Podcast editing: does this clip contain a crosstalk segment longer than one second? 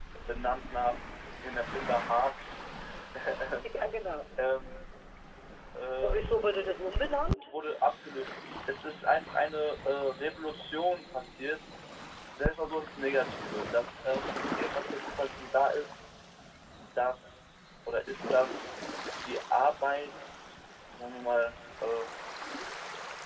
No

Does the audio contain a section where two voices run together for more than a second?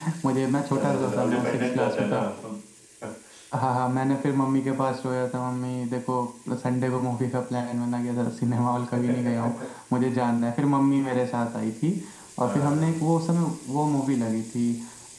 Yes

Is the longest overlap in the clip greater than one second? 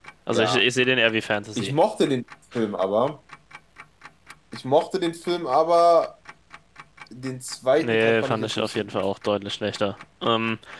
Yes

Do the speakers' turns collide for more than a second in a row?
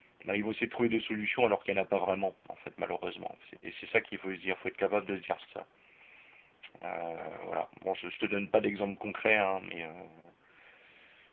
No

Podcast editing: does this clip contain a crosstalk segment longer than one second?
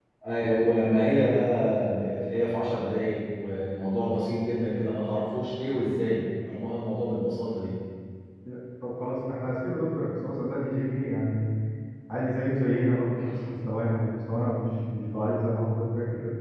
No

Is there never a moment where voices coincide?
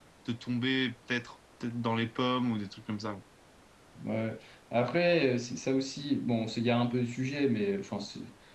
Yes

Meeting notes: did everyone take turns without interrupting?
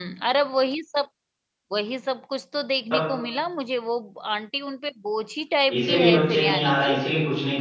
No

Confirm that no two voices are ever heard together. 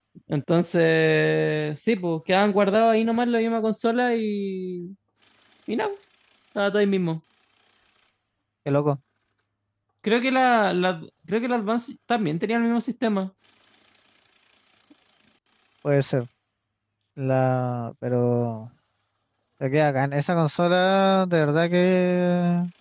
Yes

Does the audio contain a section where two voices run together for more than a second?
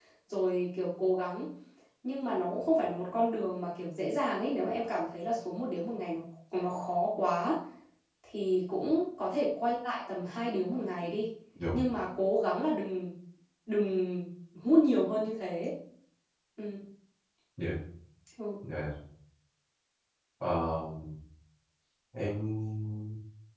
No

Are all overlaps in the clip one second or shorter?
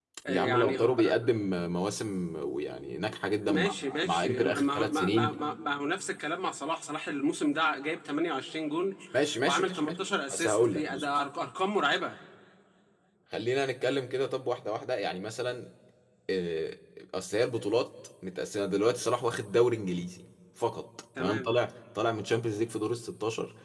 No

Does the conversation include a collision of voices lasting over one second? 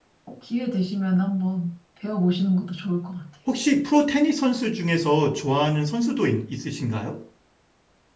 No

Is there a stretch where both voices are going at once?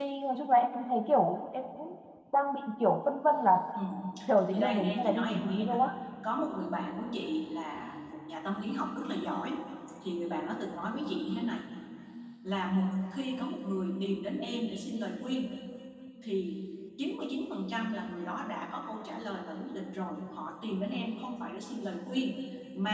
Yes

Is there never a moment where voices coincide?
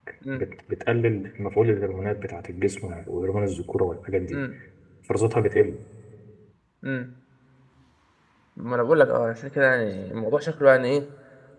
Yes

